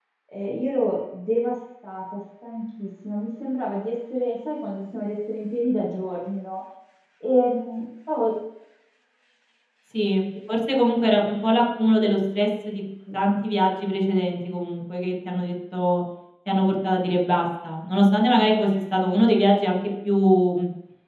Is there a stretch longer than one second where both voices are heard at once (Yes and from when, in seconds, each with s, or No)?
No